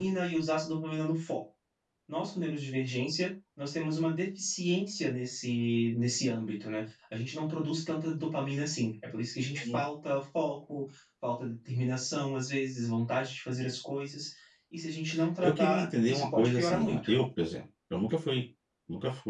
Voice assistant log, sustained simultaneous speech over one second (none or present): present